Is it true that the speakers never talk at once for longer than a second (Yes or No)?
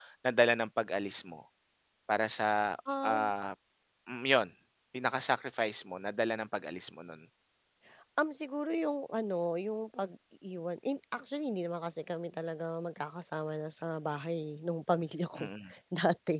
Yes